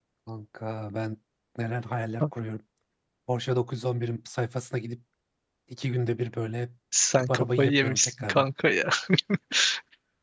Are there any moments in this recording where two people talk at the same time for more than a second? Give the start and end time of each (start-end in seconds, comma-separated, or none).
7.1-8.4